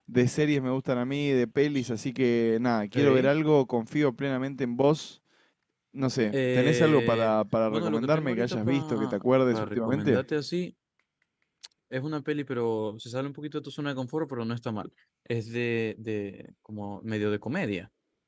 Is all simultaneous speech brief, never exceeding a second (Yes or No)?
No